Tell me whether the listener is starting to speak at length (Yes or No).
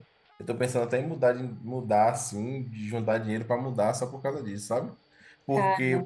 No